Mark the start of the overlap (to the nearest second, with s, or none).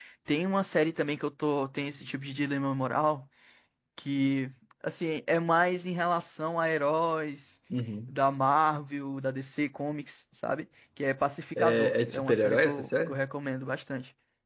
12 s